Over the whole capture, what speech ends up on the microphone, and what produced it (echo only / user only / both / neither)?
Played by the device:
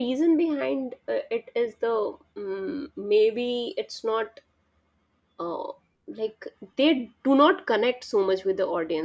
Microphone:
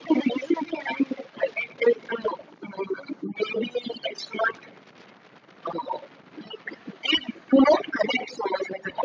echo only